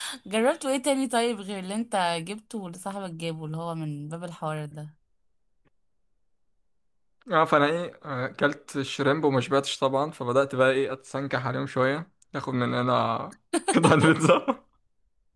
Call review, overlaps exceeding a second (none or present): none